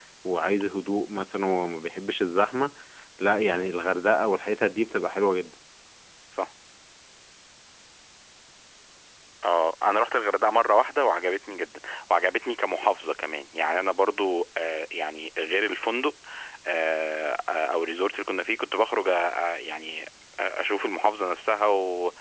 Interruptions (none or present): none